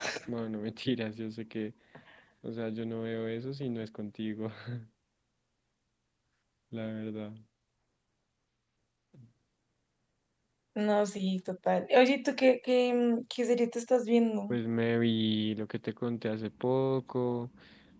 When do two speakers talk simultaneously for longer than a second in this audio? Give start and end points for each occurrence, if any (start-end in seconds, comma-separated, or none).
none